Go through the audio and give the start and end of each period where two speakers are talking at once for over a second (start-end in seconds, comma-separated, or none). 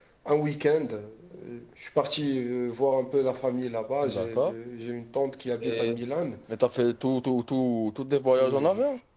none